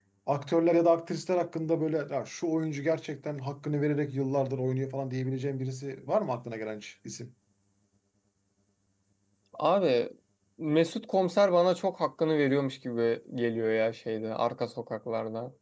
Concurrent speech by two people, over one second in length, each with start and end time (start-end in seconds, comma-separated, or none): none